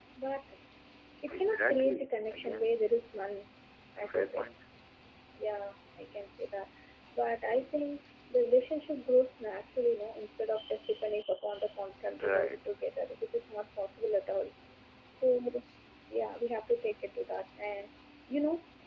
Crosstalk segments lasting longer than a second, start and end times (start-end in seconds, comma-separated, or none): 1.3-2.7